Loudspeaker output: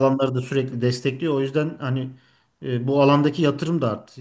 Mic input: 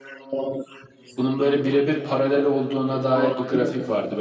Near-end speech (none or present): present